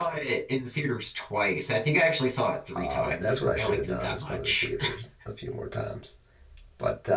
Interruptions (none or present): present